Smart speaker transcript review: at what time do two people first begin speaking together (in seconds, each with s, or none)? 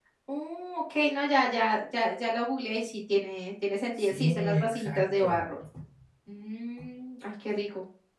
4.0 s